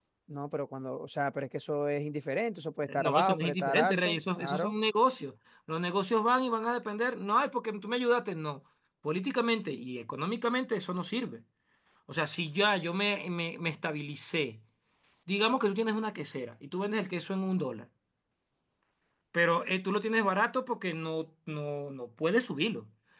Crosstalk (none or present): present